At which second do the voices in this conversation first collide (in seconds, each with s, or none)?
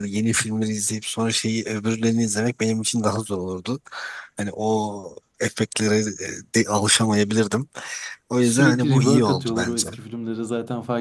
8.4 s